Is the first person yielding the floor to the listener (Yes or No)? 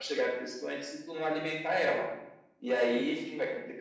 No